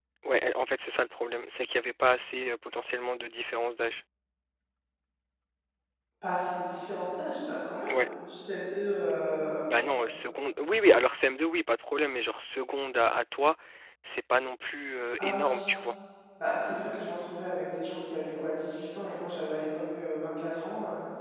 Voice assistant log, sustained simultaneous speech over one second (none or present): none